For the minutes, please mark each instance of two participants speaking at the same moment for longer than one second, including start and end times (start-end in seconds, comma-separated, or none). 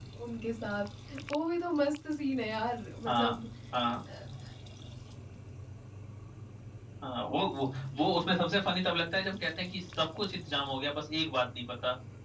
none